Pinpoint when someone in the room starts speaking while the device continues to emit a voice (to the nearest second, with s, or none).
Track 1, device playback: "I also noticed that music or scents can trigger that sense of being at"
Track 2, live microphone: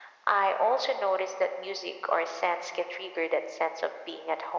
none